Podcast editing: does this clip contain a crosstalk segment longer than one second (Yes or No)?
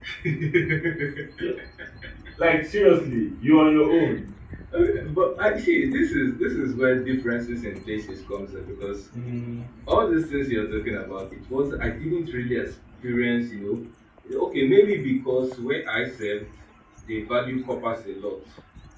No